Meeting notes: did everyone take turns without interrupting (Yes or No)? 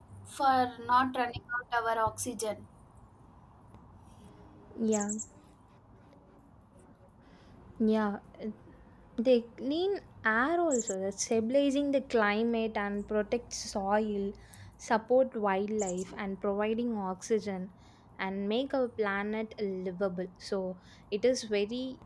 Yes